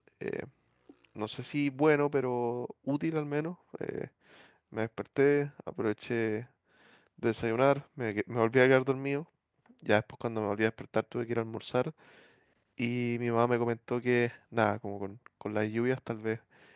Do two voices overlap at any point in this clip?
No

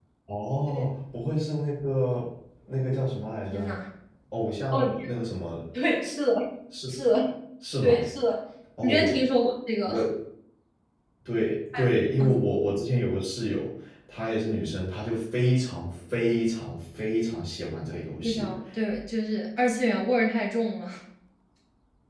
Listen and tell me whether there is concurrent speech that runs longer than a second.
No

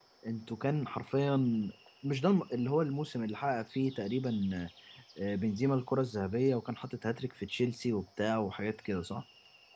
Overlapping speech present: No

